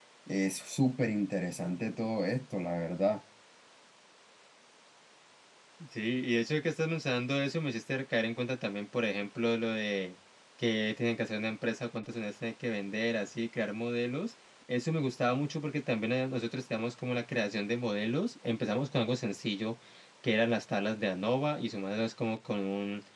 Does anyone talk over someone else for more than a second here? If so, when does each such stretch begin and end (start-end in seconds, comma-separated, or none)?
none